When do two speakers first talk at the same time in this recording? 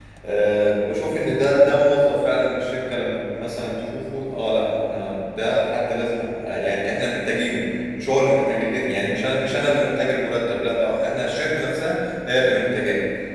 none

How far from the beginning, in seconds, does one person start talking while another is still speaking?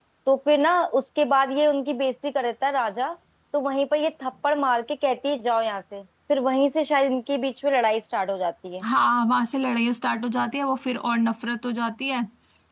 none

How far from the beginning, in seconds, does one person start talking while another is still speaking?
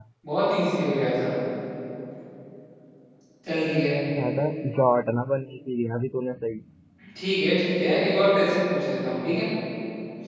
none

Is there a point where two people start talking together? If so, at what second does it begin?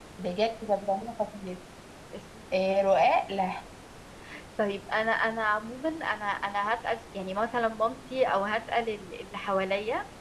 none

